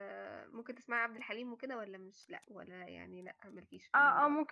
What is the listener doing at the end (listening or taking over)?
taking over